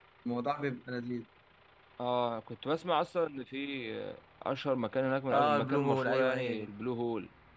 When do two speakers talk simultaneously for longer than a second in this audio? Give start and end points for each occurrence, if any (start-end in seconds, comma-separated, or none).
5.3-6.7